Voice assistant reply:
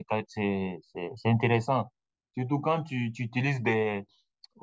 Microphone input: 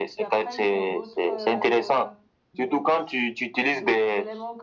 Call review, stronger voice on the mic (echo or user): echo